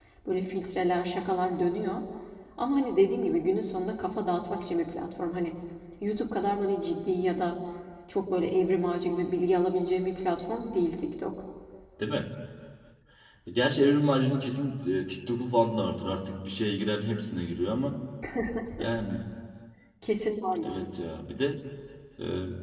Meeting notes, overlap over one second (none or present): none